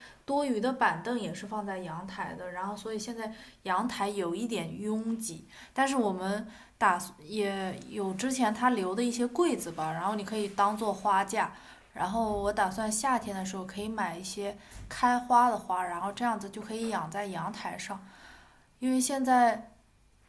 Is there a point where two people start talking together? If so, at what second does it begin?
none

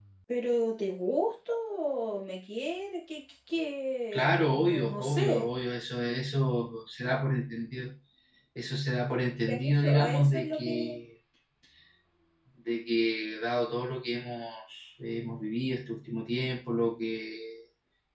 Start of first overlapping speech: 4.1 s

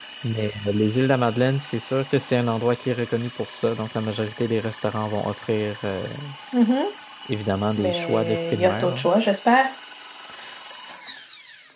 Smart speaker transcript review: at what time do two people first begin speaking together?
7.8 s

